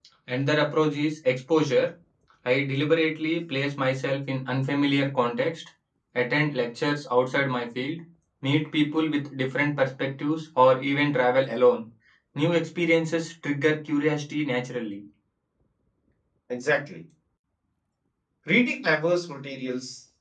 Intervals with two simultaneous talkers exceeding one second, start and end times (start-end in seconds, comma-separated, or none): none